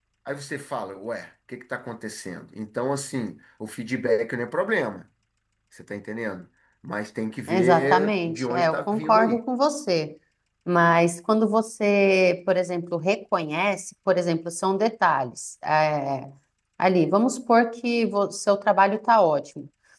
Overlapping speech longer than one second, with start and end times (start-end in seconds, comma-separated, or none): 7.5-9.4